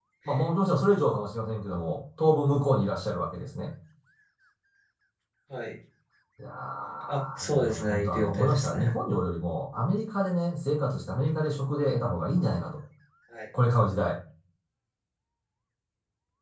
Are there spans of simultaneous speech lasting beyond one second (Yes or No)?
Yes